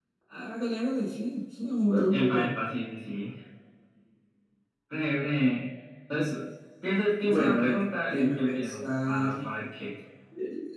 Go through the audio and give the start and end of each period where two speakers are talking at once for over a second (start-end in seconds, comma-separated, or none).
7.2-9.5